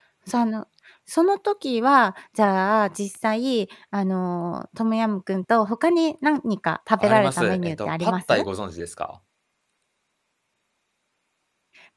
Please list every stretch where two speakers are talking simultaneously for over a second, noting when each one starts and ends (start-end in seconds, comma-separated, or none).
7.0-8.4